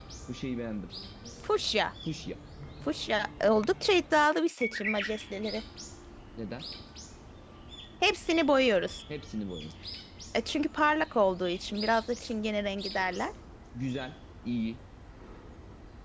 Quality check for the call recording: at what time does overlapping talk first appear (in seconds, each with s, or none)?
none